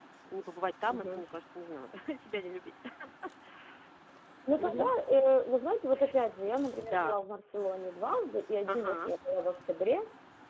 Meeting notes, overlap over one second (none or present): none